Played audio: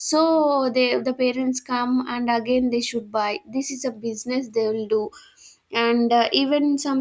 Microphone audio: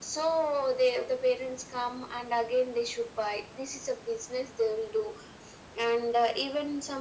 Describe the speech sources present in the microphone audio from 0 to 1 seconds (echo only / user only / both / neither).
echo only